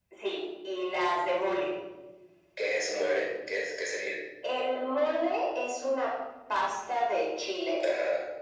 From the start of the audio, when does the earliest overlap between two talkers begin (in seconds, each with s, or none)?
none